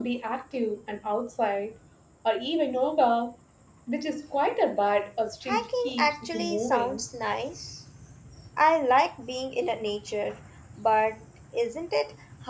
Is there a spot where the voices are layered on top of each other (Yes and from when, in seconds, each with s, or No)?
Yes, from 5.5 s